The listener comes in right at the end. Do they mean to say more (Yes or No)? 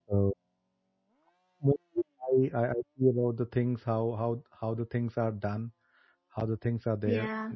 Yes